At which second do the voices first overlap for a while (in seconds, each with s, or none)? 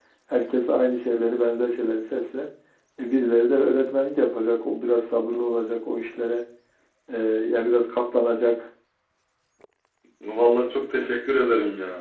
none